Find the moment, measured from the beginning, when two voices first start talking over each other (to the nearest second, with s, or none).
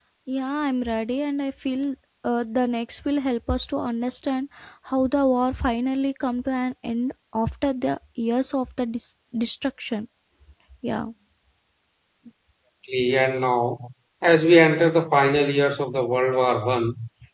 none